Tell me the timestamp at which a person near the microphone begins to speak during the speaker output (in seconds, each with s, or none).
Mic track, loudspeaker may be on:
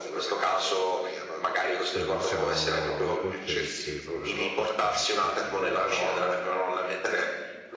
1.9 s